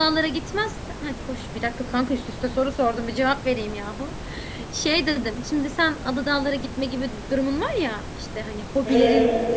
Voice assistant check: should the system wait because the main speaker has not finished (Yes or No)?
Yes